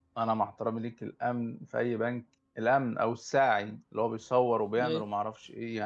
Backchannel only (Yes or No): Yes